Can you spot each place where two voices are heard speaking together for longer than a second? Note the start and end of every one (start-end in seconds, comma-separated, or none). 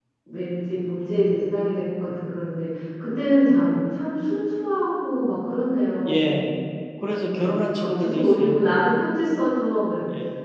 7.3-8.9